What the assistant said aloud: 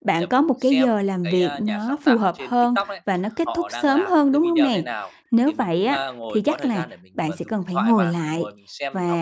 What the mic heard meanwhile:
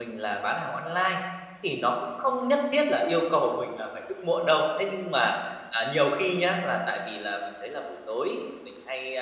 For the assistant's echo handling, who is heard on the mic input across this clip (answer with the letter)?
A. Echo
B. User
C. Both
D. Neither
B